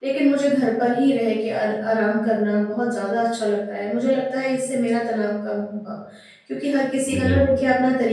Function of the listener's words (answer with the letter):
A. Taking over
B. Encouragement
B